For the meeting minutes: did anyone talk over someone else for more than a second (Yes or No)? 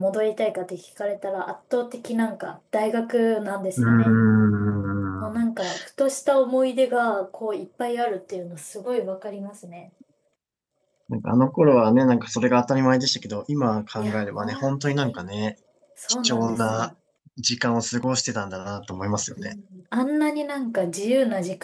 Yes